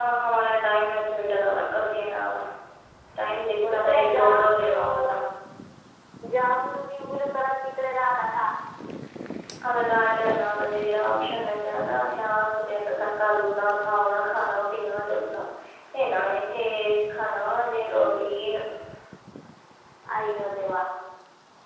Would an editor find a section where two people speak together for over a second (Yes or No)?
Yes